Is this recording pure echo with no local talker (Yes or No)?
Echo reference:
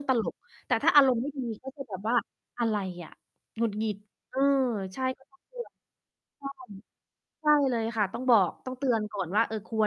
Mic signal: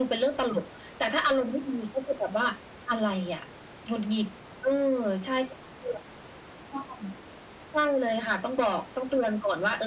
Yes